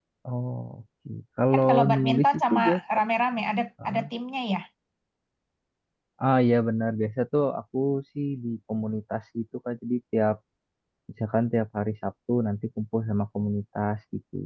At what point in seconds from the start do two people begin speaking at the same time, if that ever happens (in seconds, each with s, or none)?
1.5 s